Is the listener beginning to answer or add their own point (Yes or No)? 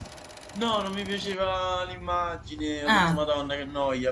No